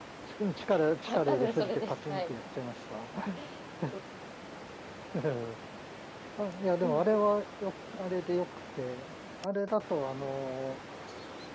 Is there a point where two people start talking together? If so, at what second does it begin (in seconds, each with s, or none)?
1.0 s